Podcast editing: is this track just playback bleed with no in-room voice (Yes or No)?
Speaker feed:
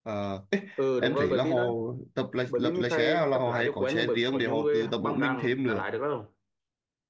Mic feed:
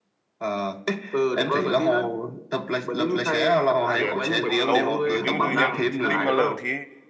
No